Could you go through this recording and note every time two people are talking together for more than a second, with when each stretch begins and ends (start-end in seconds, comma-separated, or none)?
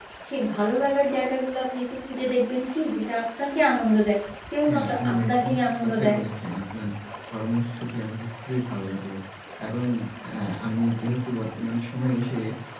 4.7-6.2